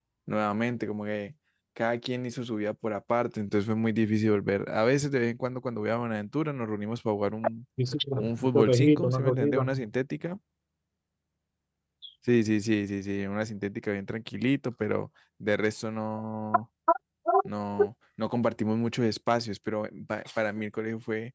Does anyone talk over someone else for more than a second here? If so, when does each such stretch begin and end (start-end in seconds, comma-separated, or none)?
8.2-9.7